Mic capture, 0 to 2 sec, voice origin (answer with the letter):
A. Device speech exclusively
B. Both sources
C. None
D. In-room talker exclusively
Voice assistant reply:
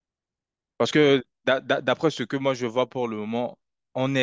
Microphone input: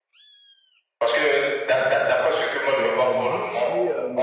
A